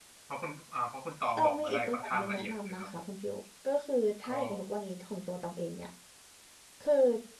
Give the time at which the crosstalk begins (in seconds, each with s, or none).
1.4 s